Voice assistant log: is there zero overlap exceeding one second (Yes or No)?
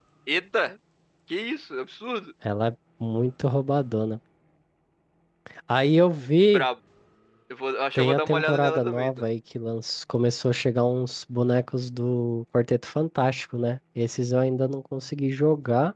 No